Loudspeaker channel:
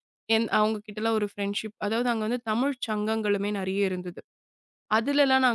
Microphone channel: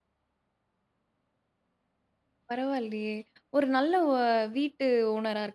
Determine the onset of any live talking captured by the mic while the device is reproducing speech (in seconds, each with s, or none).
2.5 s